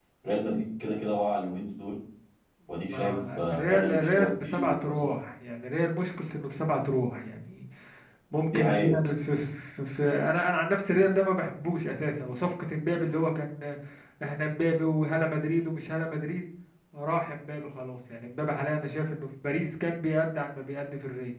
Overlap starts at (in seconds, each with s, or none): 2.9 s